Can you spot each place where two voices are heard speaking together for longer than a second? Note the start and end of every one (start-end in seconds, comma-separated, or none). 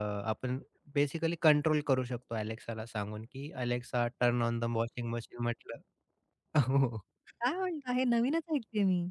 none